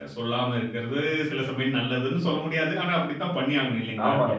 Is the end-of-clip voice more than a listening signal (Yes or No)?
Yes